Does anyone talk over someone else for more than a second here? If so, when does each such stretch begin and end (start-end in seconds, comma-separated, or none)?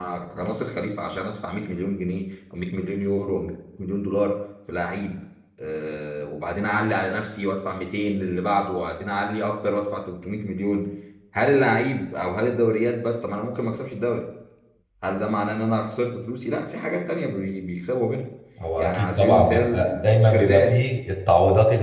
18.8-20.9